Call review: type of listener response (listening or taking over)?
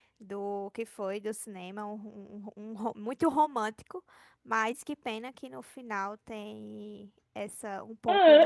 taking over